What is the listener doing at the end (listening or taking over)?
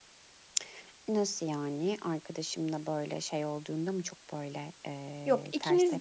taking over